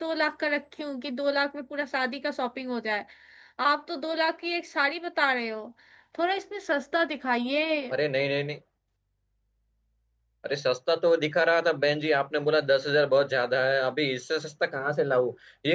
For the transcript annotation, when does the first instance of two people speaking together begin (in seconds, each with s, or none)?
none